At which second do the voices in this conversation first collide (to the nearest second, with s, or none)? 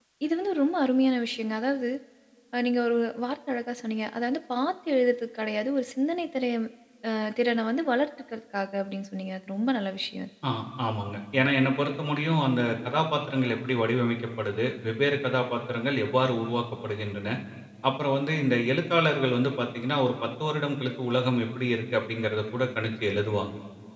none